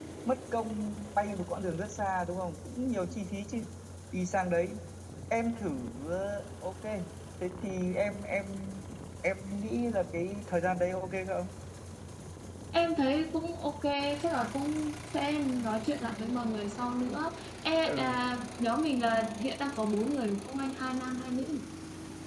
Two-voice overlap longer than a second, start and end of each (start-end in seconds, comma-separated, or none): none